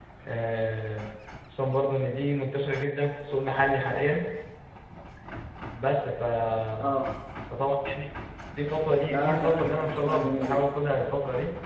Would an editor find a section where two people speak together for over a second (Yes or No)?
Yes